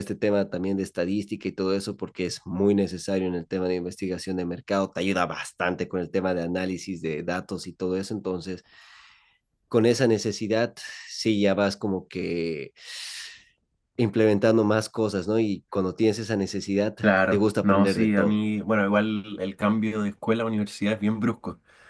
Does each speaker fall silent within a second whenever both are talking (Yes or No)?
No